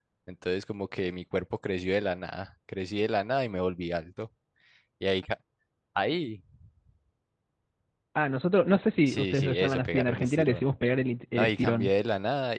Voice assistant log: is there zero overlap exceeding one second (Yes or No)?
No